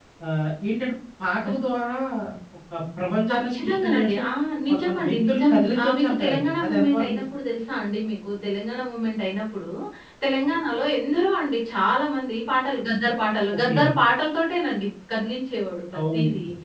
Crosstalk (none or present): present